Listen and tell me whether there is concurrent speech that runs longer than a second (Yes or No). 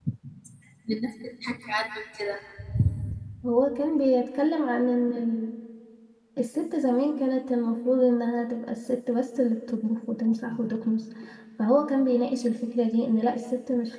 No